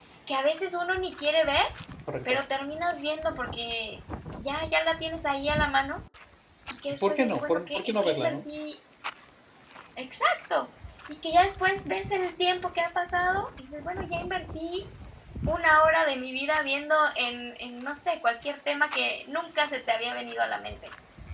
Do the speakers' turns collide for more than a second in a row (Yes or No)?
Yes